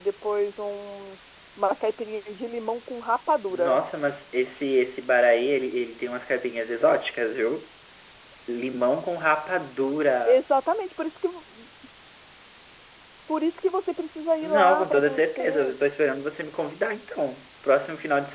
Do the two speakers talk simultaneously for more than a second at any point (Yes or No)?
Yes